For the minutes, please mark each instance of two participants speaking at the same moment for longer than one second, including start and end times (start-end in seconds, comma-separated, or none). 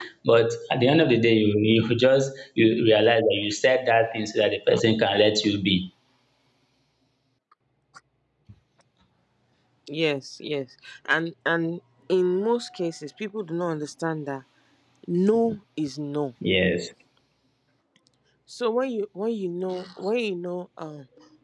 none